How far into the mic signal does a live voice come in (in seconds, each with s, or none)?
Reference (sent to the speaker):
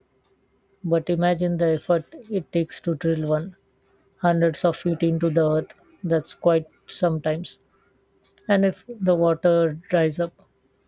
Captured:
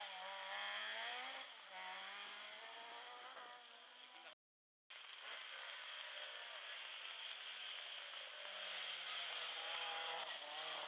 none